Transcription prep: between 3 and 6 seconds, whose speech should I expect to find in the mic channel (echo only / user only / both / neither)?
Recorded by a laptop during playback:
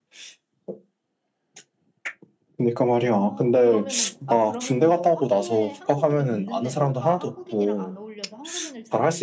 both